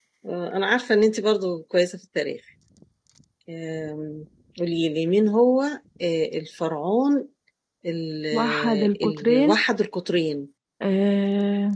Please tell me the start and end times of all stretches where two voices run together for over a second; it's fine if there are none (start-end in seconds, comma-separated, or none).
8.3-9.6